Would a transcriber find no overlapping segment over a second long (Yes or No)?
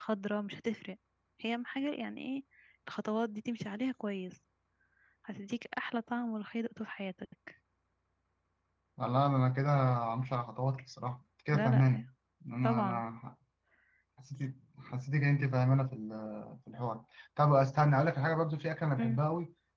Yes